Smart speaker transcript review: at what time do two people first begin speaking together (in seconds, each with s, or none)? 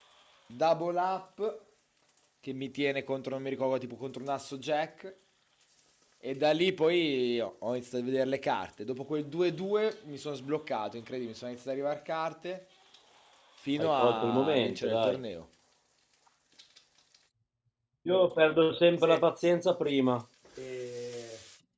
13.8 s